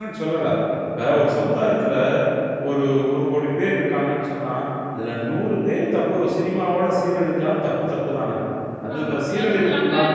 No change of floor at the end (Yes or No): No